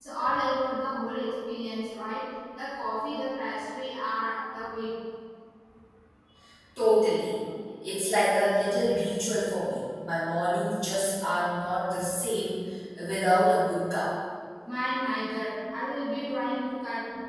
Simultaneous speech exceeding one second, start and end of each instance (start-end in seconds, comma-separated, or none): none